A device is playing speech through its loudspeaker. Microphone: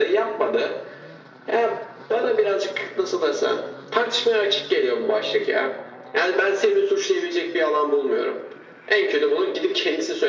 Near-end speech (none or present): none